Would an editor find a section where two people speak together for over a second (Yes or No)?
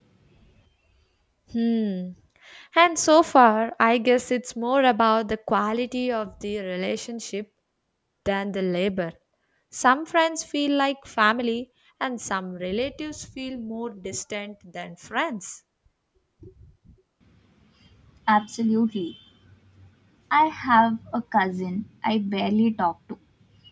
No